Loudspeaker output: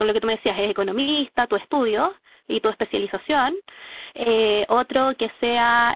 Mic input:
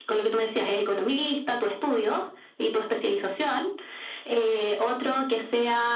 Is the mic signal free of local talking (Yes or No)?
Yes